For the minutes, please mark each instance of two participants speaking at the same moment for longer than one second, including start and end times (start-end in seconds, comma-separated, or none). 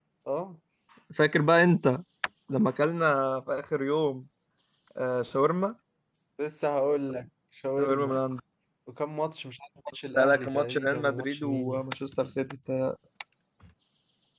10.2-11.8